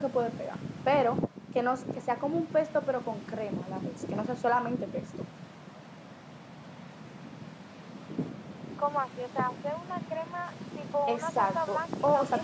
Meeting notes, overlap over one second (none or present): present